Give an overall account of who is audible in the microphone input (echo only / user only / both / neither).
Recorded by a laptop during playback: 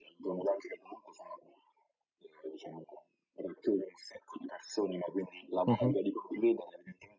both